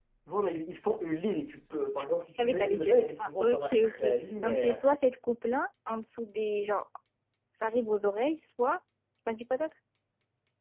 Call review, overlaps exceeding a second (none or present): present